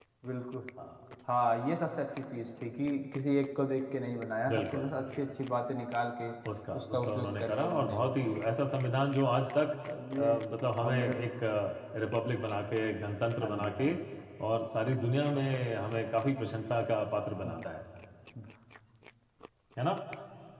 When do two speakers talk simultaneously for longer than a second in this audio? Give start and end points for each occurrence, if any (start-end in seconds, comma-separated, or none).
6.8-8.4